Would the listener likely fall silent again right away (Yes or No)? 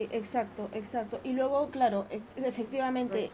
Yes